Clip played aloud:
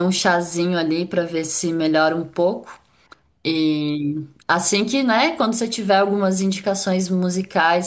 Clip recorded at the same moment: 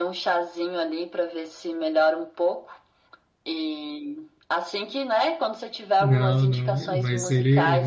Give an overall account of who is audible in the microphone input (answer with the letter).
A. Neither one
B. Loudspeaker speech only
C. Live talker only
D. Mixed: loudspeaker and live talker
D